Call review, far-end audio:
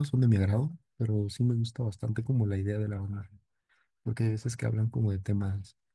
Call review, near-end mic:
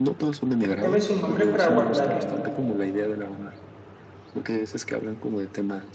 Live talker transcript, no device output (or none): repíteme su nombre para guardarlo,